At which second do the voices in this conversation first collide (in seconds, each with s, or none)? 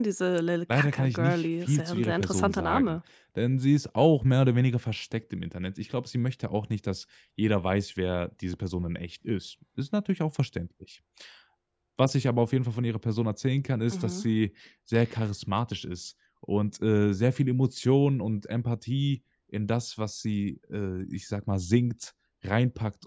0.7 s